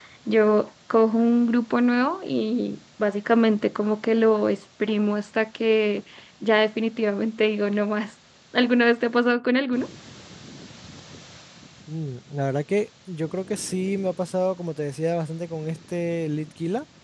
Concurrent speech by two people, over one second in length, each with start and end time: none

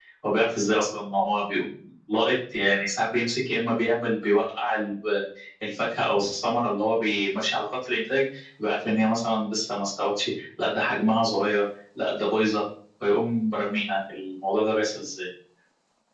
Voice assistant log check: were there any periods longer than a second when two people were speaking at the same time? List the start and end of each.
none

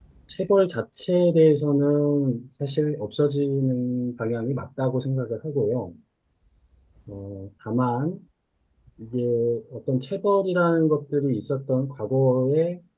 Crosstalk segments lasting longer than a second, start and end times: none

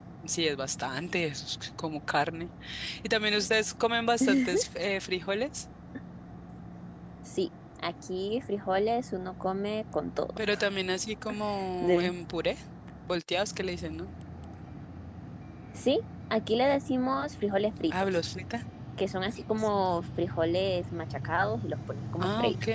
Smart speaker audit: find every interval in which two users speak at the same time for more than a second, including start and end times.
none

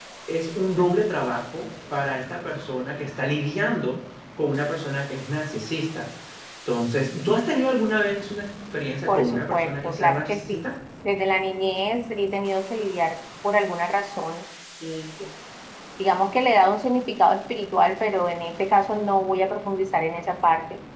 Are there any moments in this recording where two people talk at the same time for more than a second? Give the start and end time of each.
9.1-10.7

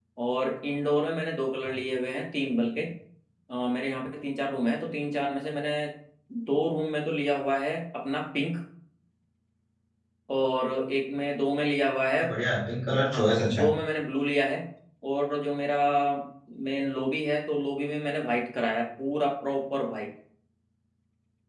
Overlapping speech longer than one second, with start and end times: none

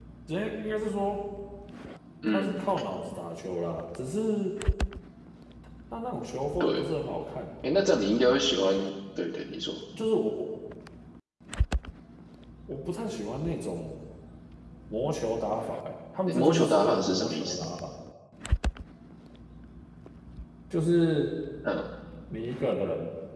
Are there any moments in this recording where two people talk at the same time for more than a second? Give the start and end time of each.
16.3-17.6

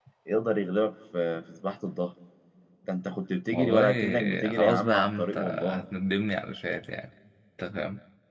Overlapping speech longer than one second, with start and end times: 3.5-5.8

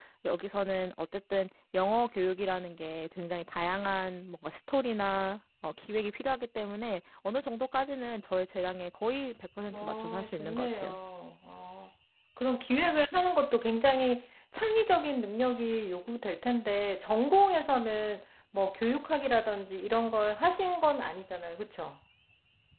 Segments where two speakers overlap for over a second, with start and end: 9.7-11.0

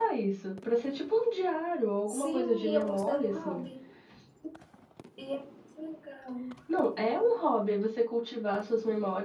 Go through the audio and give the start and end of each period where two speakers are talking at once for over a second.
2.1-3.6

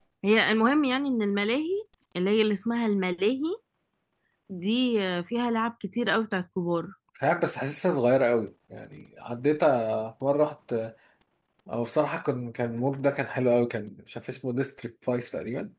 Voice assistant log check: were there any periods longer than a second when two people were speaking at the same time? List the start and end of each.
none

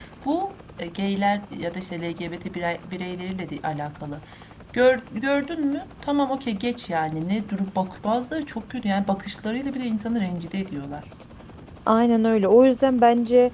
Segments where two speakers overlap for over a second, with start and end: none

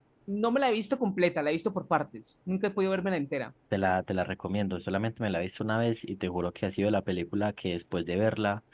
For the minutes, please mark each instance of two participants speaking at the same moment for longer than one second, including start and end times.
none

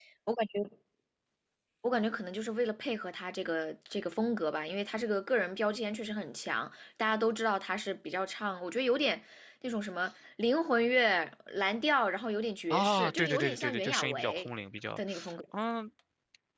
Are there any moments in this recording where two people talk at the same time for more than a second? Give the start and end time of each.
12.7-14.5

